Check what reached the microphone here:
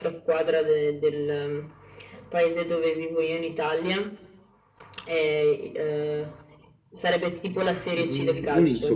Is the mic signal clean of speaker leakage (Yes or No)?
No